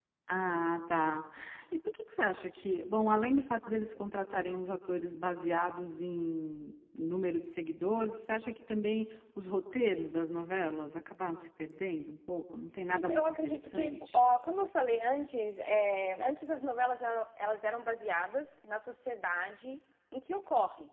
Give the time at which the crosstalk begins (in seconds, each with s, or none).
12.9 s